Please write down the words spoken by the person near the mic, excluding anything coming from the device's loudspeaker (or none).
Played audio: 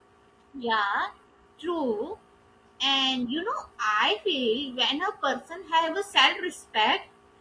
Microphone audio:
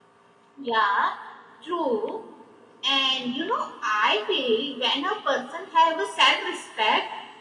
none